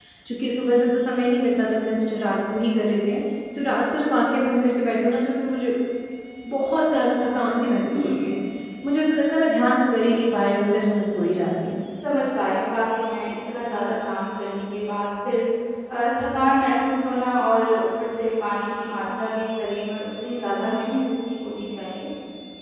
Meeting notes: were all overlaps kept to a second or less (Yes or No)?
Yes